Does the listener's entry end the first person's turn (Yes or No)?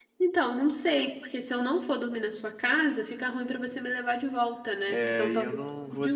Yes